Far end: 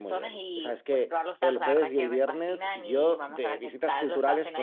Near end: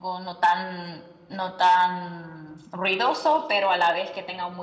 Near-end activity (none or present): present